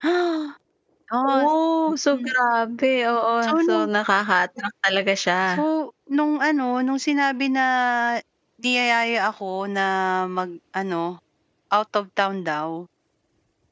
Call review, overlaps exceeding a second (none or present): none